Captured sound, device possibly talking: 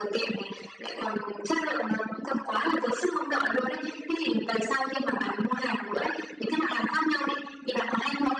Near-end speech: none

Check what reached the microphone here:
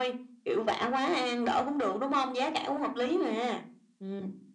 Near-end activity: none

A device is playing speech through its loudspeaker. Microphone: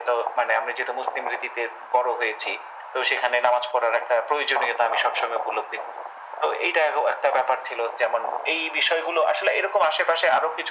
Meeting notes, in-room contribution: none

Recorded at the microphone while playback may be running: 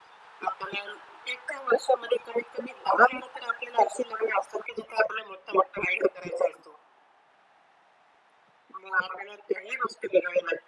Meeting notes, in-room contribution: none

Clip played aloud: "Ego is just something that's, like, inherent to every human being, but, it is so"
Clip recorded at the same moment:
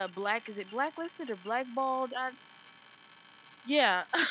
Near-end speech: present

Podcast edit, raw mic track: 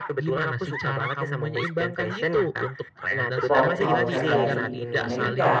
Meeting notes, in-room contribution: present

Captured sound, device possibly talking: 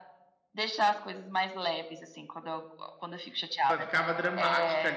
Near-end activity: present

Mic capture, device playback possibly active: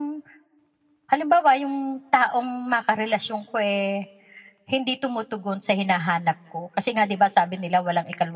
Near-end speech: none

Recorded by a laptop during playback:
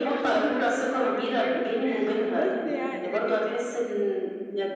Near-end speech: present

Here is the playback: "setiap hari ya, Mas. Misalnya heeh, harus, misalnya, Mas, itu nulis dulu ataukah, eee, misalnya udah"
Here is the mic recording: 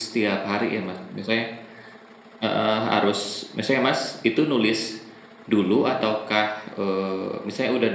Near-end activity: none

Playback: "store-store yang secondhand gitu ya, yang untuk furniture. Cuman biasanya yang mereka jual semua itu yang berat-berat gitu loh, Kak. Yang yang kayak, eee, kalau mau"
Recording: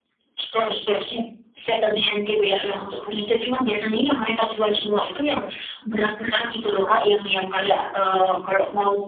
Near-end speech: none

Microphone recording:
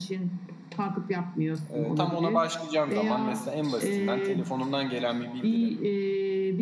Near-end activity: present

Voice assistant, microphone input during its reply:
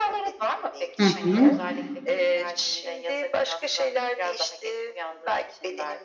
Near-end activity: present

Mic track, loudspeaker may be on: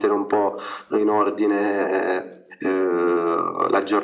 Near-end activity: none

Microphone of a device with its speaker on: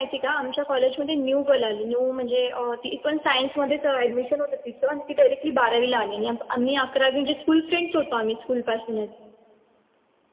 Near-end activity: none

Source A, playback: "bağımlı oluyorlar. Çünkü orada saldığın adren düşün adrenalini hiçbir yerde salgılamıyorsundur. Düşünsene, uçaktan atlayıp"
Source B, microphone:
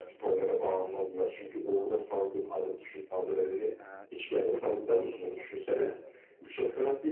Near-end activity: present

